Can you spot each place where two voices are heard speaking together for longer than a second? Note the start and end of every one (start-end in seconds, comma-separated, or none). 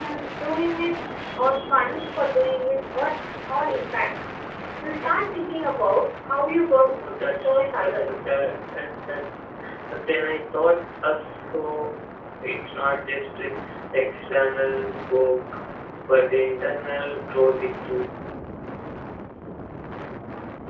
6.9-8.3